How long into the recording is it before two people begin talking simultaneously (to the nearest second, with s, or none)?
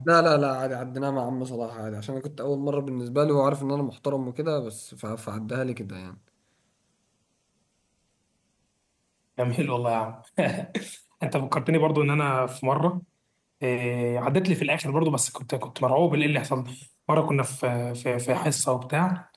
none